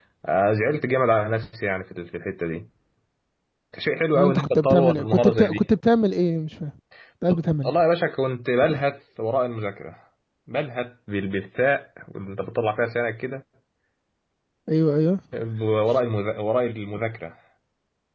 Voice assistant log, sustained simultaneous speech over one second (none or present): present